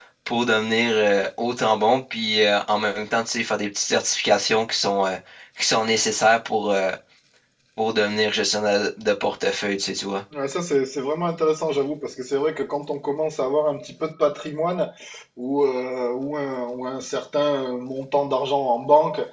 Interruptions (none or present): none